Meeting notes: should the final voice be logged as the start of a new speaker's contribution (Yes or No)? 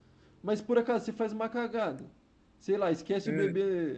No